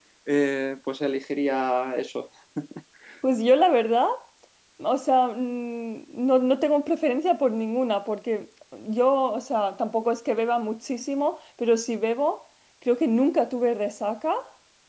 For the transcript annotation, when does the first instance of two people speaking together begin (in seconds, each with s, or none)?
none